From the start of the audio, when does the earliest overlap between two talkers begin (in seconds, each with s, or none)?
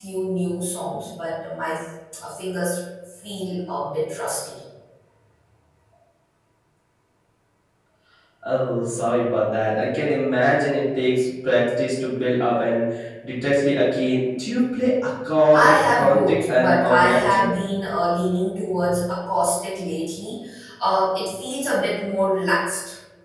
15.5 s